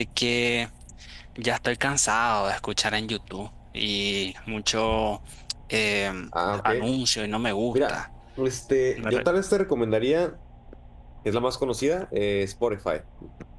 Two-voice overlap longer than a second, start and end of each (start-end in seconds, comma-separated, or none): none